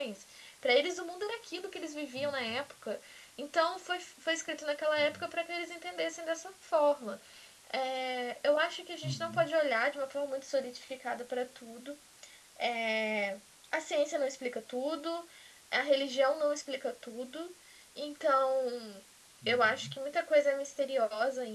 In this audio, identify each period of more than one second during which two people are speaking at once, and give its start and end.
none

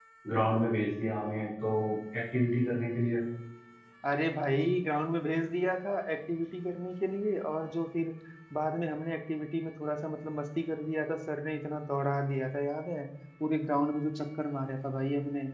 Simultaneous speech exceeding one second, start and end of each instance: none

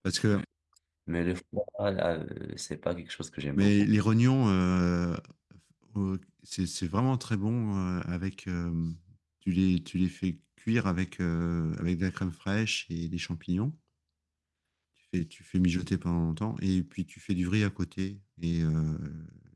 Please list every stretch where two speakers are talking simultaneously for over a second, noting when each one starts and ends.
none

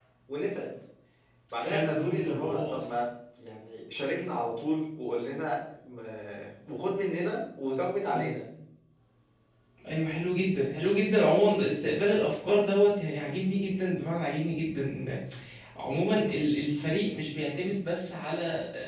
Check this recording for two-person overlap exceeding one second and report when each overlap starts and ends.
1.6-2.9

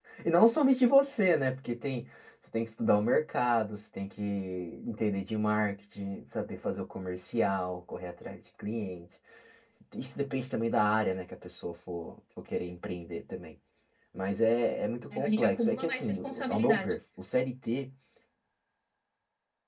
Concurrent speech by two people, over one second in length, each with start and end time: 15.1-16.9

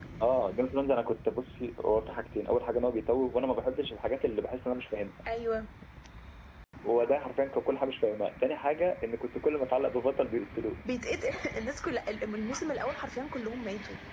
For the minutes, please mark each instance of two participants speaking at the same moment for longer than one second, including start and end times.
none

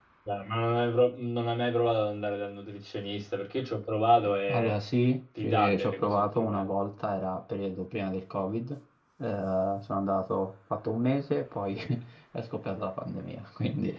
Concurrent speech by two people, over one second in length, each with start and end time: 5.4-6.6

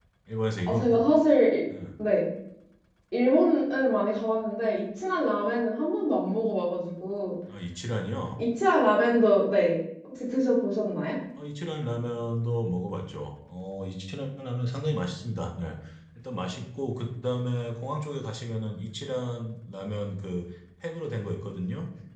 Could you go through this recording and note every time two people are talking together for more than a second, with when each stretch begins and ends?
none

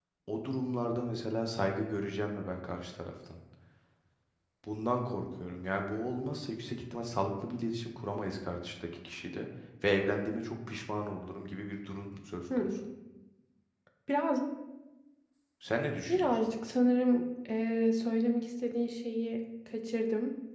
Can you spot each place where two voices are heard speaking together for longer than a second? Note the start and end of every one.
none

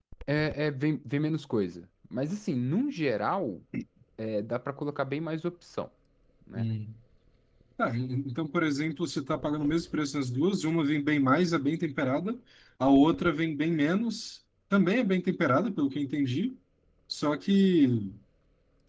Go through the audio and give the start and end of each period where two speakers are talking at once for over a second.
none

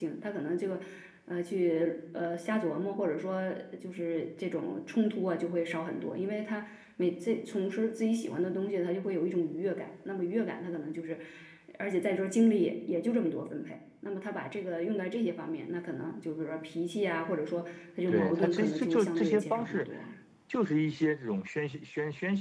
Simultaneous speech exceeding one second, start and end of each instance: 18.1-19.9

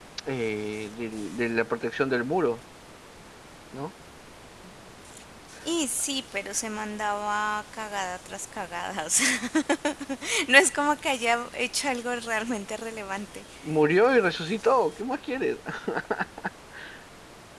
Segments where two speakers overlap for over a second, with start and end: none

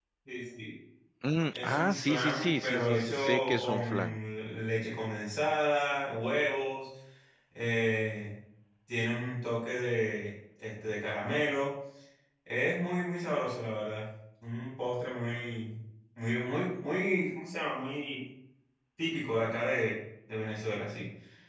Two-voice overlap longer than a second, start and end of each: 1.5-4.2

